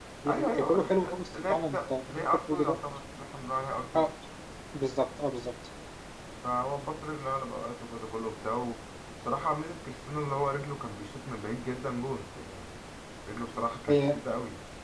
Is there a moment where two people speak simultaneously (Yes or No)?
Yes